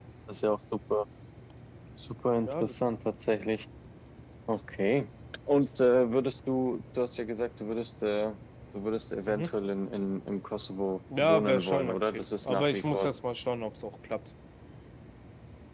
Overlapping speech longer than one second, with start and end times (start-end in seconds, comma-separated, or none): 11.2-13.2